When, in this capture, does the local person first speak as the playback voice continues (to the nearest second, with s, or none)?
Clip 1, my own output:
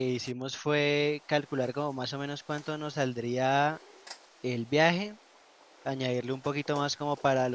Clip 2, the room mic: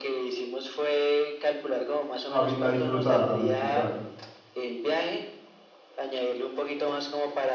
2 s